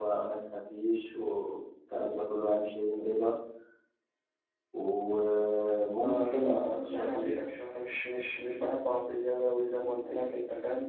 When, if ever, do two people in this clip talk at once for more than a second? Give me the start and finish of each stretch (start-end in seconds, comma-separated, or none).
6.0-7.3